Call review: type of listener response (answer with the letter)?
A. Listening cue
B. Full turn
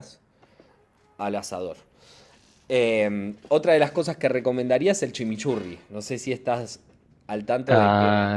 B